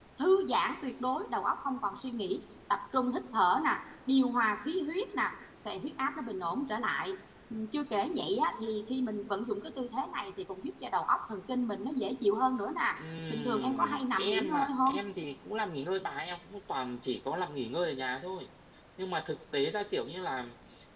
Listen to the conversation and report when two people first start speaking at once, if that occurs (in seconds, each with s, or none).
13.3 s